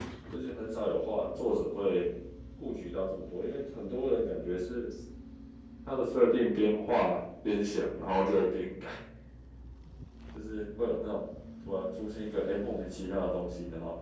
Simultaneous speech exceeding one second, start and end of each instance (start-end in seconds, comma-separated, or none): none